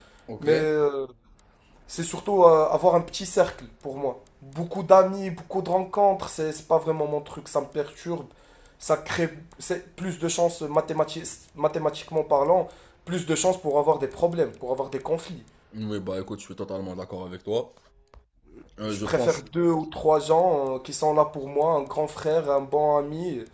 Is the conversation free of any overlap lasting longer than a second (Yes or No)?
Yes